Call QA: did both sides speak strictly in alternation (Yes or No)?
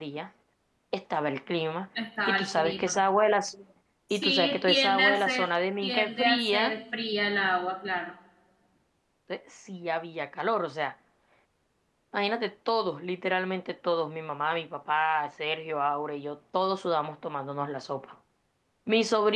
No